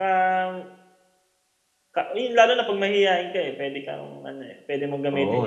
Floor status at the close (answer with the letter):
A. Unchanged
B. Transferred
B